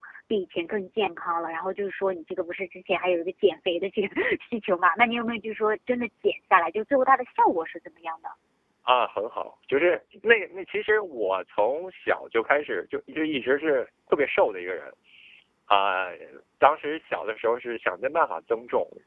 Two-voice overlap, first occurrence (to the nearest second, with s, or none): none